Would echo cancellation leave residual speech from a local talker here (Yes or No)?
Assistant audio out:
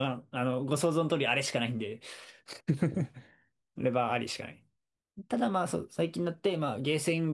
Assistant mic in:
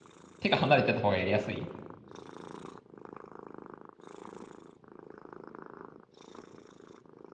Yes